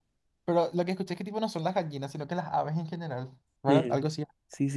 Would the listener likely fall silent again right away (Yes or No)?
No